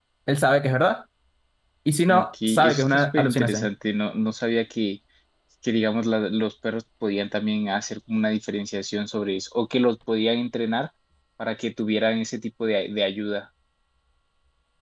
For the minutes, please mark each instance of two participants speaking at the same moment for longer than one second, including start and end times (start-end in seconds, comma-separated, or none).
2.1-3.7